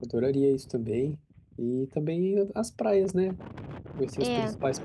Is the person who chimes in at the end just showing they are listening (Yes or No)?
Yes